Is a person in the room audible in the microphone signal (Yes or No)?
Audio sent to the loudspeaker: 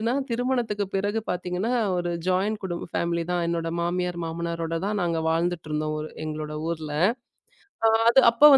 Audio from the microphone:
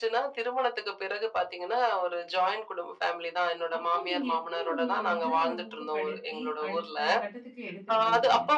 Yes